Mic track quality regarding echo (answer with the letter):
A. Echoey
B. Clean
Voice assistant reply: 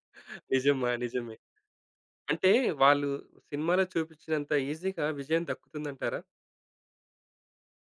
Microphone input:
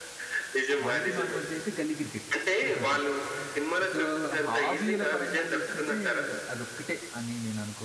A